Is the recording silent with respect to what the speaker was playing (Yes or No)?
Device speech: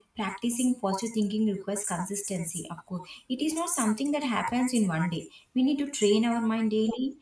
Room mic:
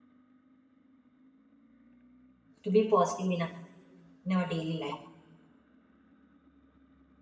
Yes